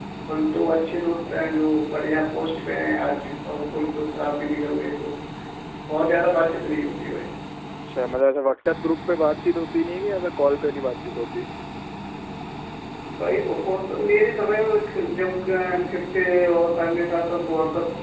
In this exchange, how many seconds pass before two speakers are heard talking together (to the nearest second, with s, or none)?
none